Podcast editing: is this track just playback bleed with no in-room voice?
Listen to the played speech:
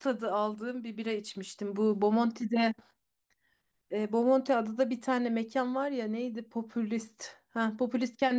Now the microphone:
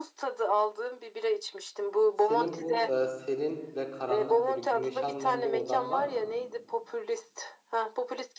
No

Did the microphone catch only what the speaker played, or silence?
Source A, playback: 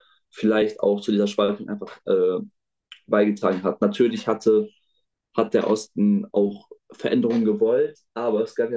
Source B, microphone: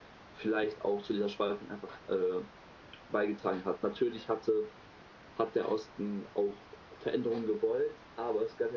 Yes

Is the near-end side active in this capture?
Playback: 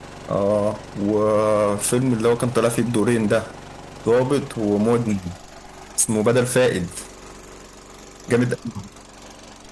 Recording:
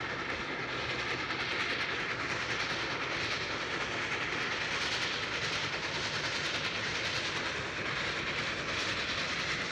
No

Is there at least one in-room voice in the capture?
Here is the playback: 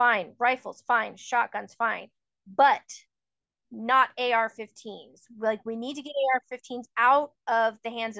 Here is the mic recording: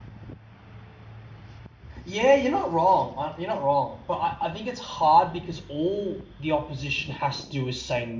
Yes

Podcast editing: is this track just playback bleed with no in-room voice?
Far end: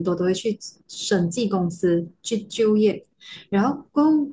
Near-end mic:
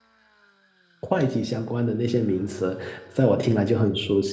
No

